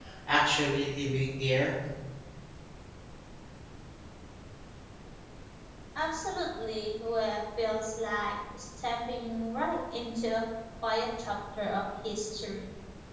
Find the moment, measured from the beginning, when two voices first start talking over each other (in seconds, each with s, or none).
none